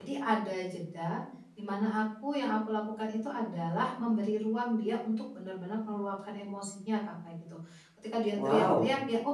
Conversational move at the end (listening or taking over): listening